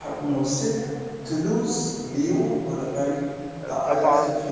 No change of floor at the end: No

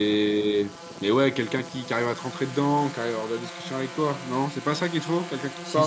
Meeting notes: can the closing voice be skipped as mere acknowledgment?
No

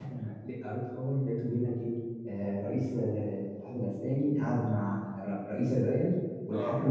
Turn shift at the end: No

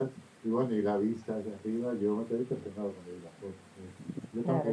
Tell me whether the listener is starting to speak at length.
Yes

